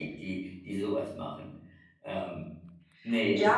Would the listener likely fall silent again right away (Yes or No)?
No